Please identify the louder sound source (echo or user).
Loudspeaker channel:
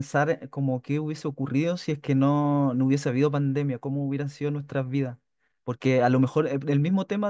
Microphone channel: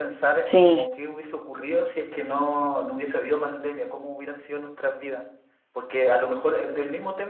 user